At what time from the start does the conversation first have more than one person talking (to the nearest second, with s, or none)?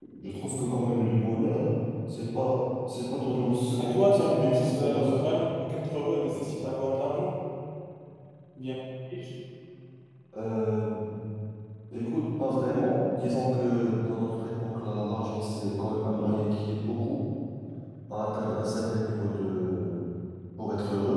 4 s